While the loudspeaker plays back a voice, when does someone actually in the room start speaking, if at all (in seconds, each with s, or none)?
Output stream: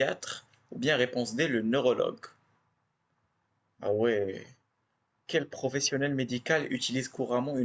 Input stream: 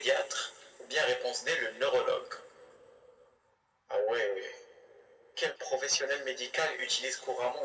none